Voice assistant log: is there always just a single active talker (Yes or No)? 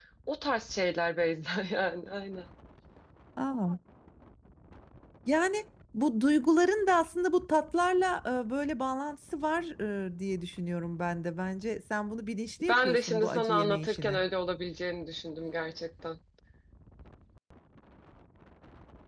No